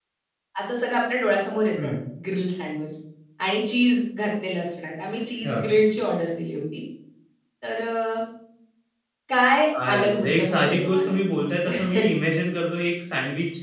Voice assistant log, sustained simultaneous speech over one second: present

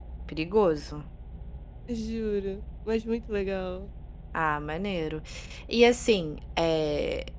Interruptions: none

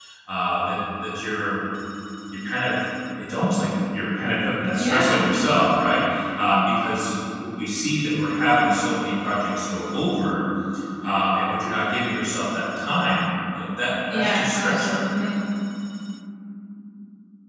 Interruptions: present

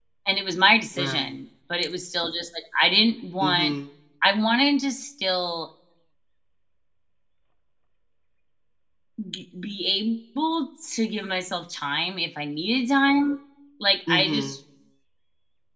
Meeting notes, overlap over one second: none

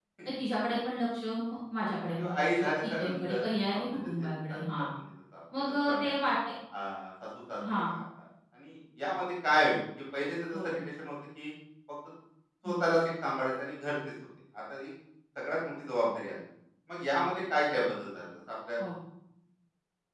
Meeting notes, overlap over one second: present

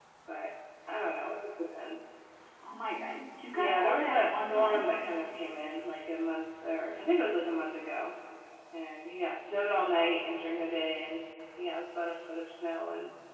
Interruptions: present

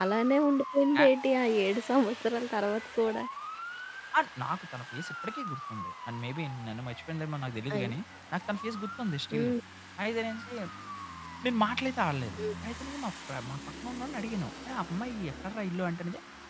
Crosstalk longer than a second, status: none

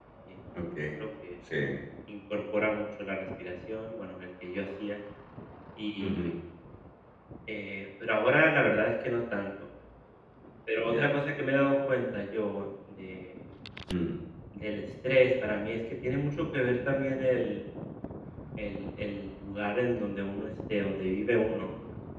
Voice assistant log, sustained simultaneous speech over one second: none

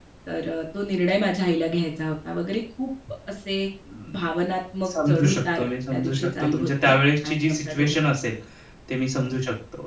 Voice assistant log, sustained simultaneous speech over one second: present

